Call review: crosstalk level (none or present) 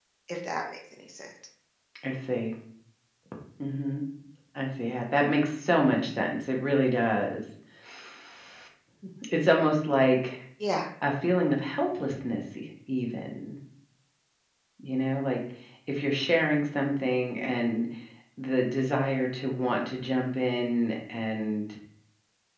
none